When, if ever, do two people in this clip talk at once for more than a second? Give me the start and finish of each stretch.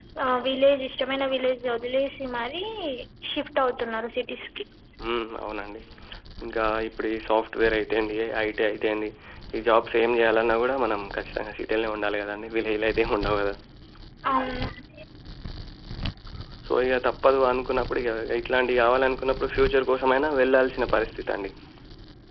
none

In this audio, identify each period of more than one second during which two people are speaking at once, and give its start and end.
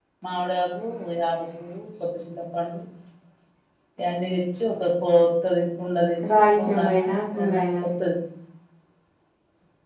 6.3-7.8

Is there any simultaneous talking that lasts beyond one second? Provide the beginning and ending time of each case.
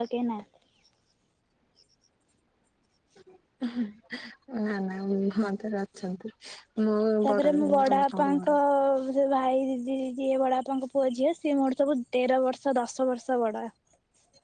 7.2-8.5

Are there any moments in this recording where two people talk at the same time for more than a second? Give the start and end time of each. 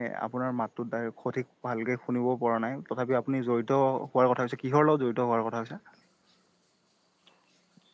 none

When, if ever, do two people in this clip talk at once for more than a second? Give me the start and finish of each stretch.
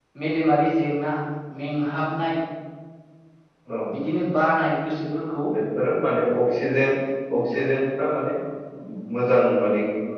none

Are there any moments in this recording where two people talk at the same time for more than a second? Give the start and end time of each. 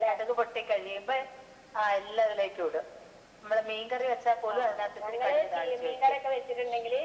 4.5-6.1

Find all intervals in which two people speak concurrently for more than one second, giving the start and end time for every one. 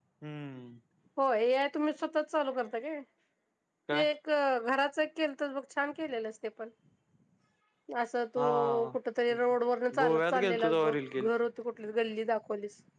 10.0-11.3

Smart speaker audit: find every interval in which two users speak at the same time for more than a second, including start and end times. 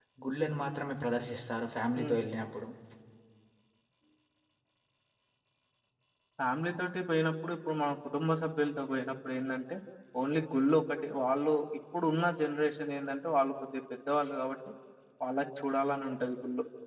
none

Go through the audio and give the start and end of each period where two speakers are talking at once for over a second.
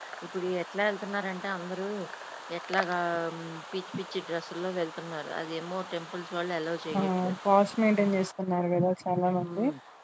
none

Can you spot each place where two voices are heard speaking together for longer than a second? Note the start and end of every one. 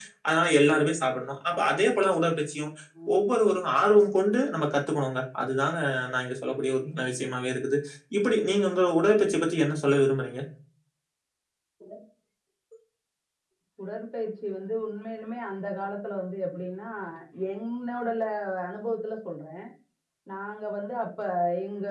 none

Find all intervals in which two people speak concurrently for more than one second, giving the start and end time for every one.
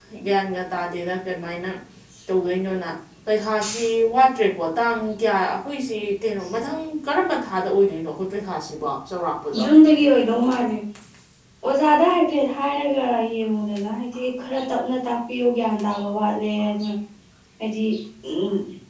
none

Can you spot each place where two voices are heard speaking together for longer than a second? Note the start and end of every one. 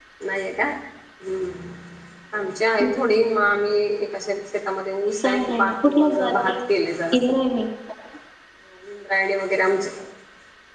5.2-6.6

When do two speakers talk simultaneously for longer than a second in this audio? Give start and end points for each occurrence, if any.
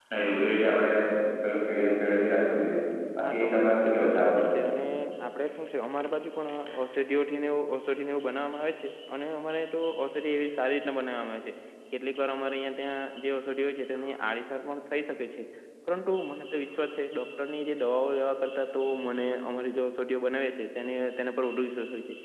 3.3-4.6

